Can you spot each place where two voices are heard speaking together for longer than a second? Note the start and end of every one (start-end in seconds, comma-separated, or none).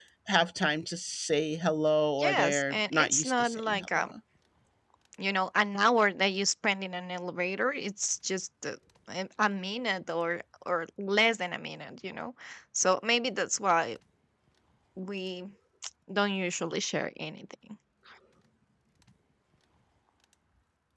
2.2-4.1